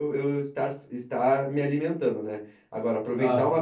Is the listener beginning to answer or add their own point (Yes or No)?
No